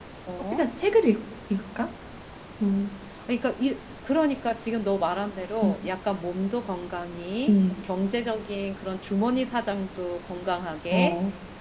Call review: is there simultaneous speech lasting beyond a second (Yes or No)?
No